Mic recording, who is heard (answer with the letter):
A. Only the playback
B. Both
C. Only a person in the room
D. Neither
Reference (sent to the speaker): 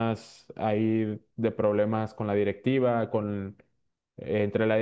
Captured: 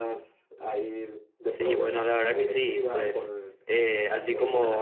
B